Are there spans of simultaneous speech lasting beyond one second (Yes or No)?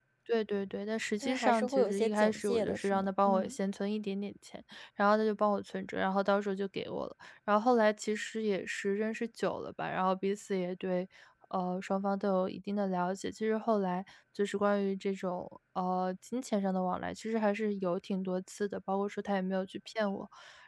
Yes